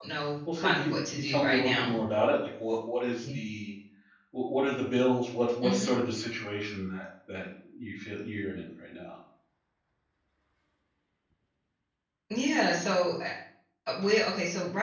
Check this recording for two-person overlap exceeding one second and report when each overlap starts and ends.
0.6-1.9

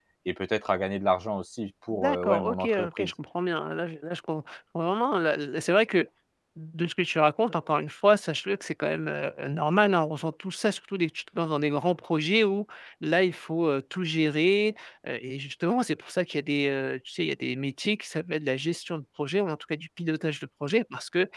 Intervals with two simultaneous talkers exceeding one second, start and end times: 1.9-3.1

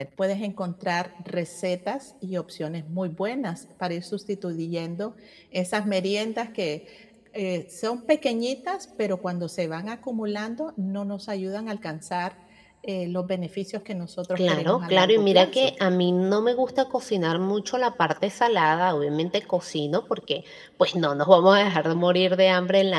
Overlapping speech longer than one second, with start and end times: 14.3-15.7

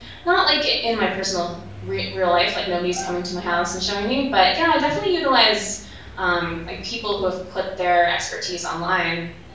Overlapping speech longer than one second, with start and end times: none

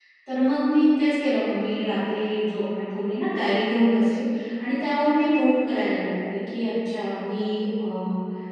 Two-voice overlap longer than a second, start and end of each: none

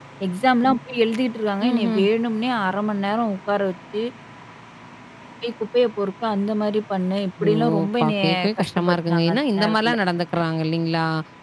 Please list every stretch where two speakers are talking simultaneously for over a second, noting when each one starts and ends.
7.4-9.9

